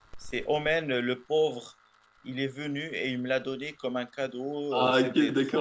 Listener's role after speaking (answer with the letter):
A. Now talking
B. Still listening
A